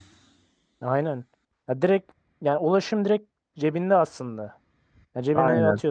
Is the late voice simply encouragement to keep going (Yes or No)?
Yes